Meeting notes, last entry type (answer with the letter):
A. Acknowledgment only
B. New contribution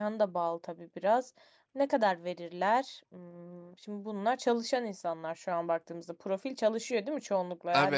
B